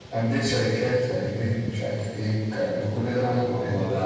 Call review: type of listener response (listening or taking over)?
taking over